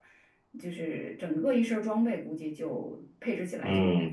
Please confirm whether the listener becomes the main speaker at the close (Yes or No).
Yes